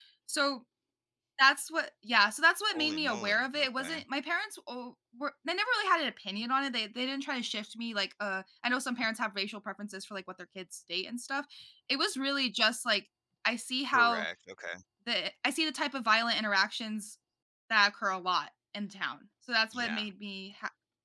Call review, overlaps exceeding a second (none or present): present